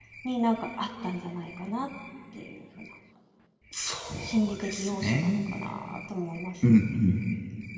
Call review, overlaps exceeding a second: present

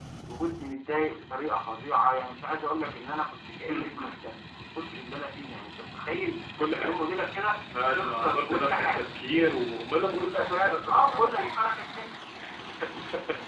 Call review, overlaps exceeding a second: present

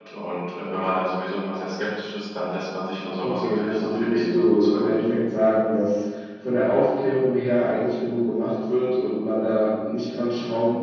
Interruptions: present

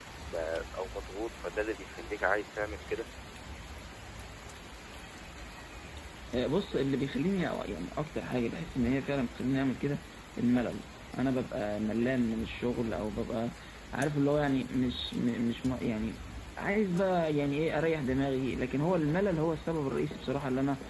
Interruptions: none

